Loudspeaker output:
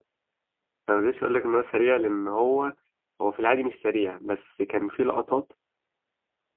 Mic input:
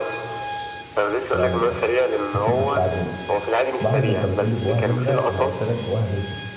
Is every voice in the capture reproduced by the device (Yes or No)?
No